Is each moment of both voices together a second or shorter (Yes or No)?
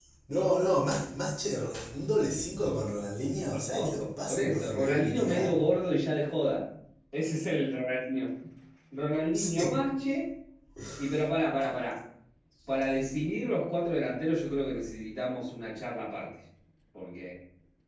No